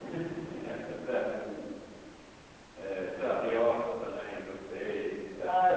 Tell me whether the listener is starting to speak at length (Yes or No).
Yes